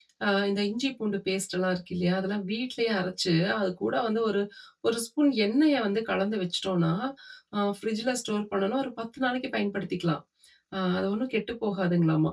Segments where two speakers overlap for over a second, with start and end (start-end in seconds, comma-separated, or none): none